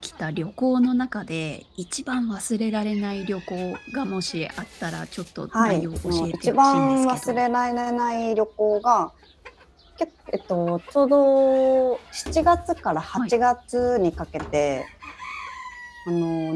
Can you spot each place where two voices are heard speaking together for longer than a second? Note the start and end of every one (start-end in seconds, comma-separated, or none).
5.6-7.4